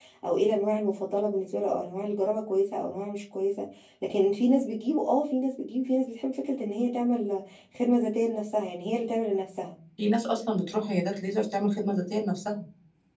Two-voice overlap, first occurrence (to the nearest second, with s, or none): none